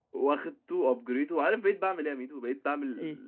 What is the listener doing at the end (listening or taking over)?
listening